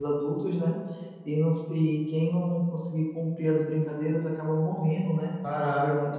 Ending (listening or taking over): taking over